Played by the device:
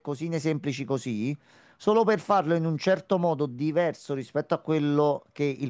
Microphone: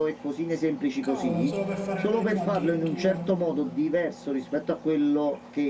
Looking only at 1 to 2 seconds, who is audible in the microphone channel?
both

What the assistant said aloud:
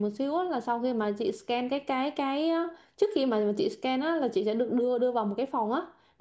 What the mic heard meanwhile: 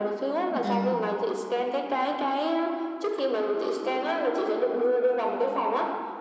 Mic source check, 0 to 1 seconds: both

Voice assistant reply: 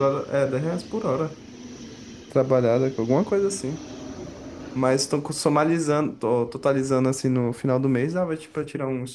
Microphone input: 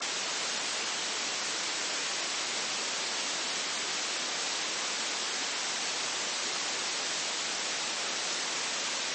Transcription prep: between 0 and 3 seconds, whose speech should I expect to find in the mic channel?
neither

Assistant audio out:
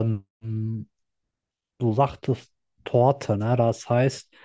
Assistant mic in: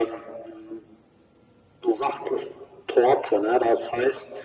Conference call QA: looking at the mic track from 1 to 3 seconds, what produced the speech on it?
echo only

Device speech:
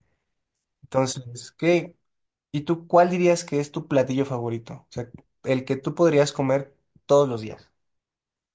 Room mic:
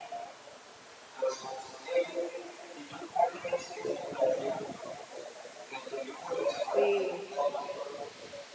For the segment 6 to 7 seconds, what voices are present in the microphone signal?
both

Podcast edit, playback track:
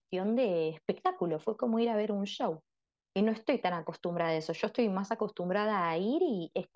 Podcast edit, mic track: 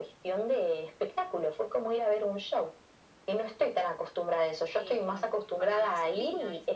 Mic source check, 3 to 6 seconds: both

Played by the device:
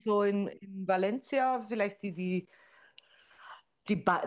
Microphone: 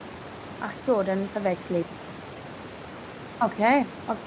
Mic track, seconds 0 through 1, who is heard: user only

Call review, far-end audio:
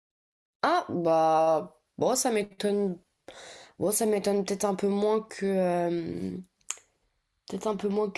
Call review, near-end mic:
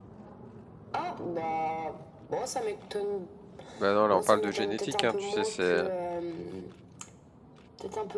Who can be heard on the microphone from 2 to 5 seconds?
both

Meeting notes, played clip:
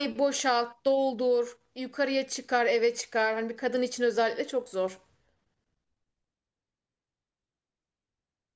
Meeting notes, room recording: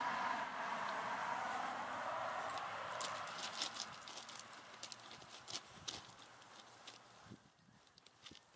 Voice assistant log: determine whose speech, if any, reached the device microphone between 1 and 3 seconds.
neither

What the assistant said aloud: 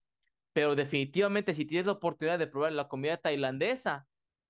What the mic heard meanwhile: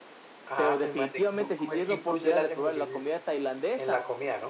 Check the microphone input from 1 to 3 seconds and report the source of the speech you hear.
both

